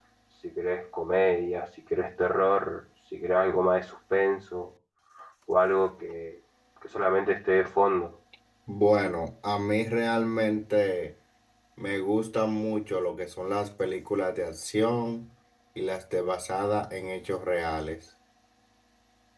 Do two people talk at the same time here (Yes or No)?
No